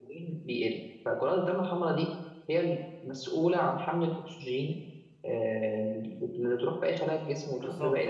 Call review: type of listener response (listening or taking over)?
taking over